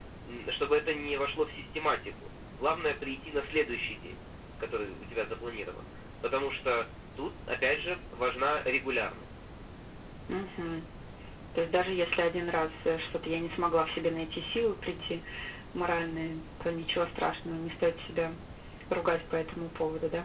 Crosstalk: none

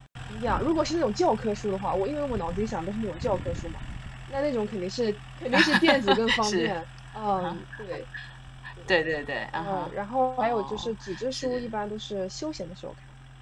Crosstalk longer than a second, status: present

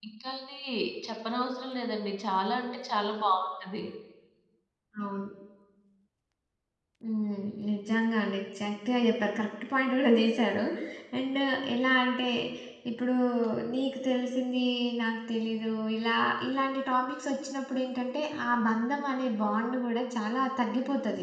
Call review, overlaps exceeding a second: none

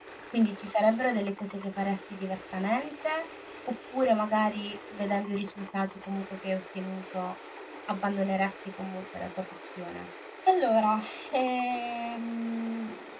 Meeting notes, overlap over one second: none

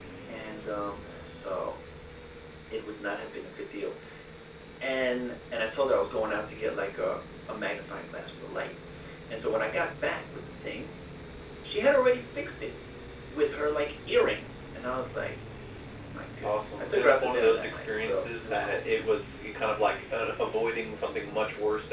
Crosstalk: present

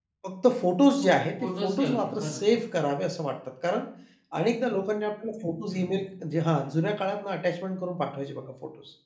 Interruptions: present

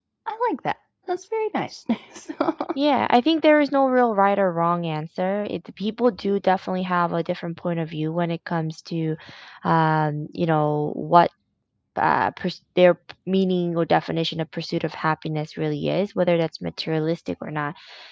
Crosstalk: none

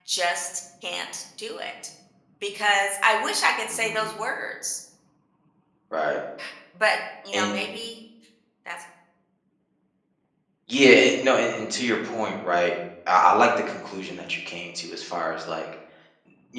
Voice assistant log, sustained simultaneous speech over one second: none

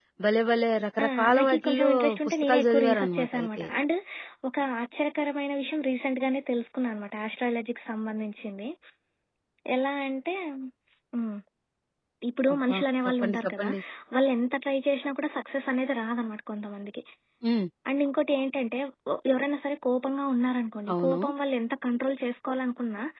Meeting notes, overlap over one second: present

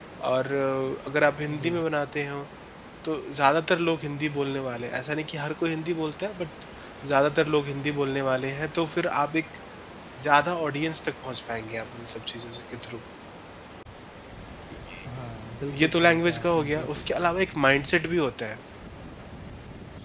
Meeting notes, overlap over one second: present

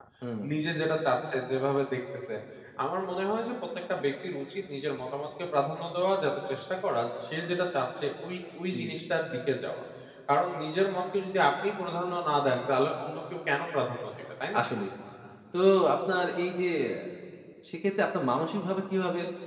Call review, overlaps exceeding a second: none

